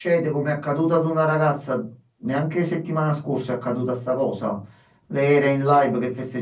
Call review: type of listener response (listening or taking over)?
listening